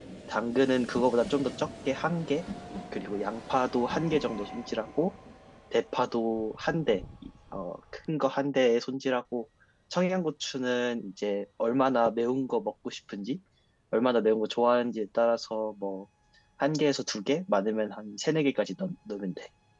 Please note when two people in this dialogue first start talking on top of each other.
none

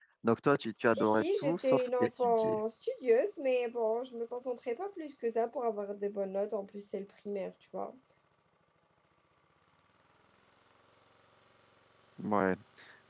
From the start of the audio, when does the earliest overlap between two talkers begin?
1 s

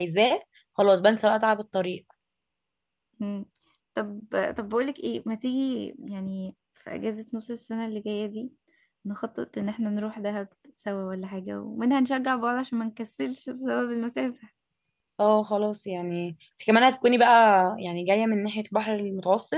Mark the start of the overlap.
none

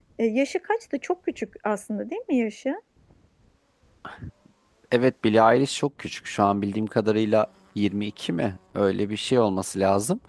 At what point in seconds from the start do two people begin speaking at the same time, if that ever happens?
none

